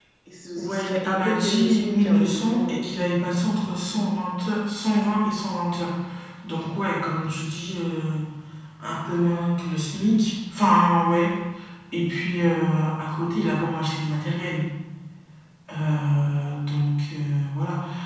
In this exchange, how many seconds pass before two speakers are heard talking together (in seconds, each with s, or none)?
0.6 s